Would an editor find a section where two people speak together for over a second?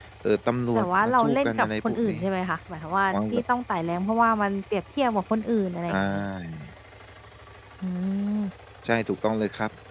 Yes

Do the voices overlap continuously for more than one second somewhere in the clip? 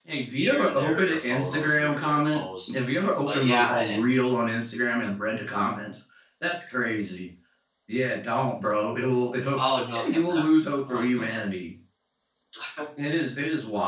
Yes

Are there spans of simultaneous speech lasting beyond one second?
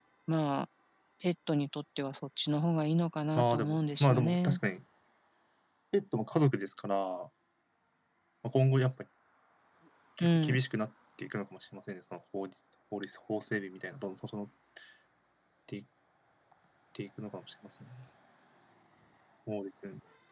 Yes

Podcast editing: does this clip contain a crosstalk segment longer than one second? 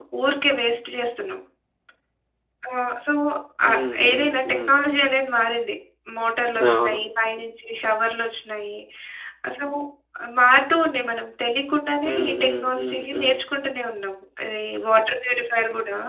Yes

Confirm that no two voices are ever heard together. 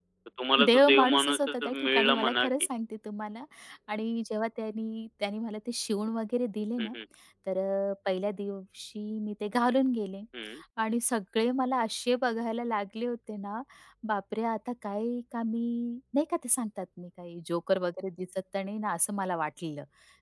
No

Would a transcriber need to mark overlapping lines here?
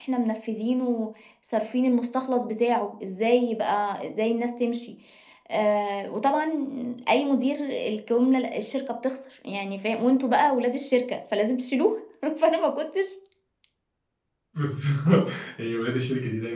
No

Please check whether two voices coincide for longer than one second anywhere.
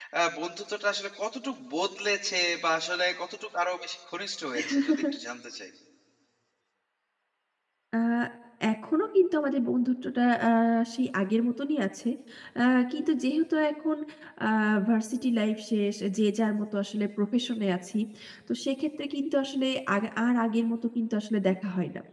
No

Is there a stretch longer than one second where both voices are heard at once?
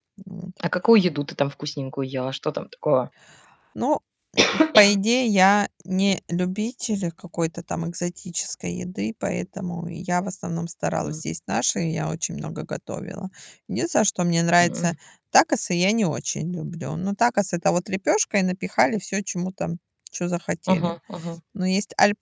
No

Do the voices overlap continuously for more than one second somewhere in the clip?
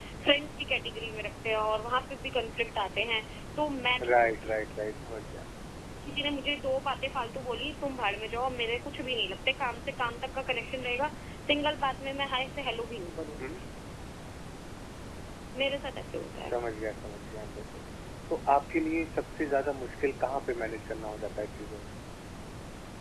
No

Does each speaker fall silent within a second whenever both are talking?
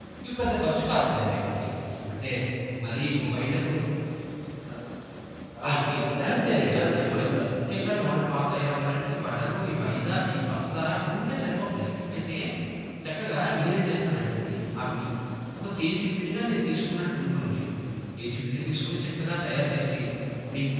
No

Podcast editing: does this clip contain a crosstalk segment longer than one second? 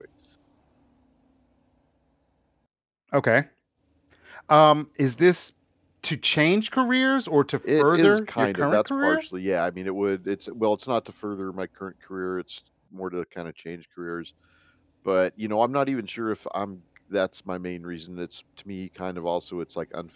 Yes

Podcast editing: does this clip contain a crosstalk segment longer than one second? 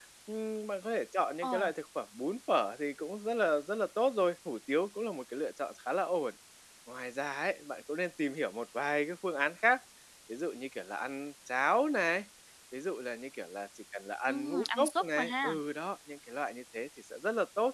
Yes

